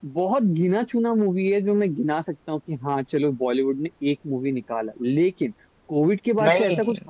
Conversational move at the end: listening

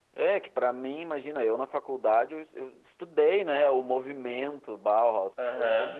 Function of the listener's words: listening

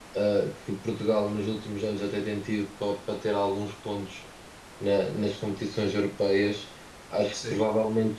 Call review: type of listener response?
listening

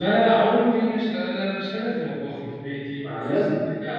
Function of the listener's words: listening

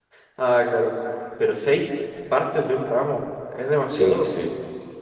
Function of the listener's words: taking over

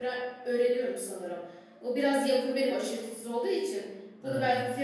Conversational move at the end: listening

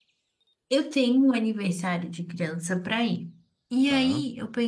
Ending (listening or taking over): listening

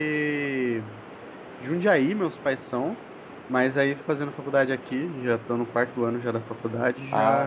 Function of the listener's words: taking over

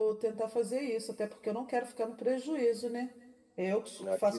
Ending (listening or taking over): listening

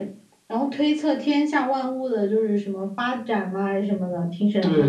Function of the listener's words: taking over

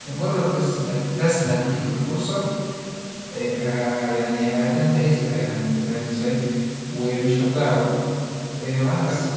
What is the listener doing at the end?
listening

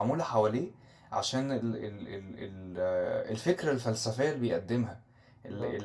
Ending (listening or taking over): listening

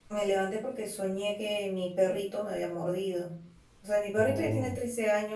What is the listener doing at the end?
listening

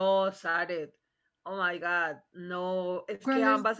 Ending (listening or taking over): listening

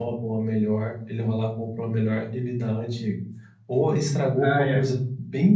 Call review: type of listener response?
listening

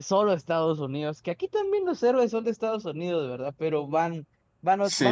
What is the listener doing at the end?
listening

